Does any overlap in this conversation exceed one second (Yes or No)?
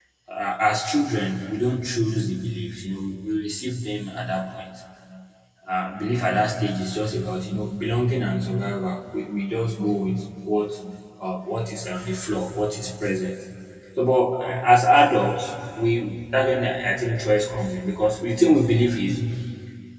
No